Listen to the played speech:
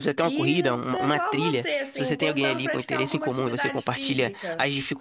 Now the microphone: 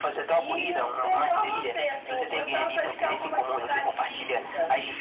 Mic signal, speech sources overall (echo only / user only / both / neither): echo only